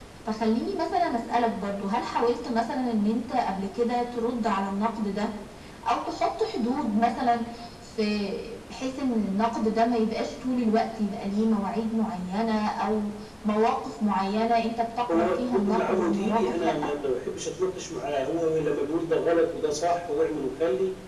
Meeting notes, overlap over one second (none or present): present